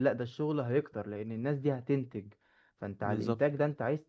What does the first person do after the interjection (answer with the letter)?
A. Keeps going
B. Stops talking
A